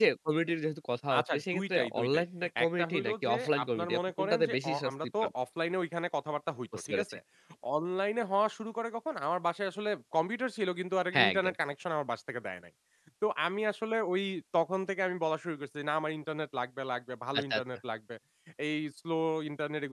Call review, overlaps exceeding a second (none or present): present